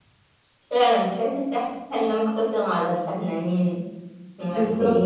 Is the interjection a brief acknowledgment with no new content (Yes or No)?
No